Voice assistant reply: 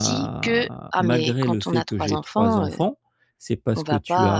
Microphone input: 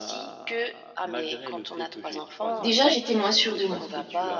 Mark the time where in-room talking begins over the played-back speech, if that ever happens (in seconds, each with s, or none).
2.6 s